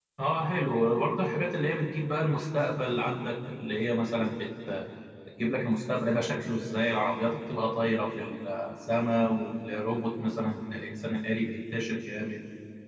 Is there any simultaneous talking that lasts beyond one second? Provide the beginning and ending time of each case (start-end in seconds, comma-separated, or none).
none